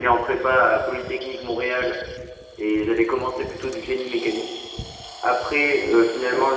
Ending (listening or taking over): listening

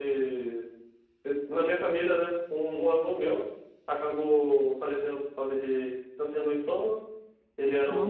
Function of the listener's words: listening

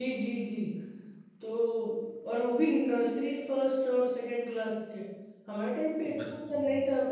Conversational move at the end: listening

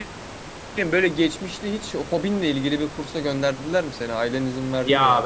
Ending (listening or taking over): taking over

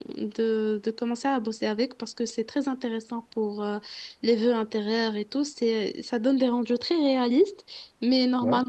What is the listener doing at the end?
listening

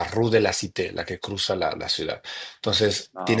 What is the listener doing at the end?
listening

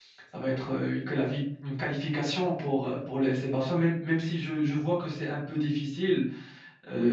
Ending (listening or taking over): taking over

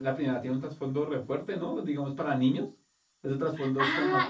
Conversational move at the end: taking over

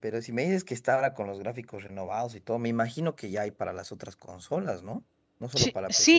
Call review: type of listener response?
taking over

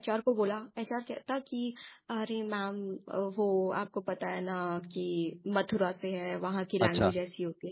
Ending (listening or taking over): listening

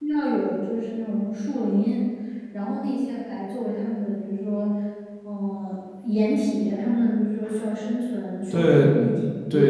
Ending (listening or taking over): taking over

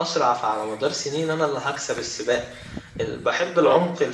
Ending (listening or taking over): listening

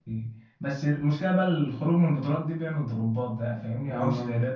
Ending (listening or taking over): listening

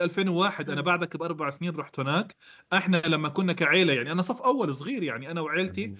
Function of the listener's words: listening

